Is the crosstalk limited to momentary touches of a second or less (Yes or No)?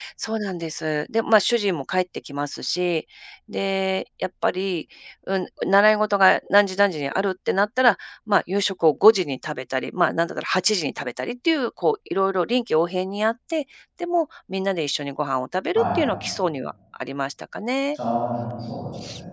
Yes